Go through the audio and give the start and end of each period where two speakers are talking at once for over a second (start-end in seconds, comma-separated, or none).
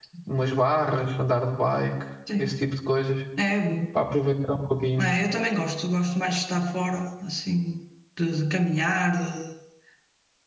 none